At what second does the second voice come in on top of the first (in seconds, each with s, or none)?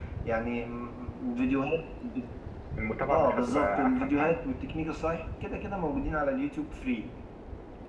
3.1 s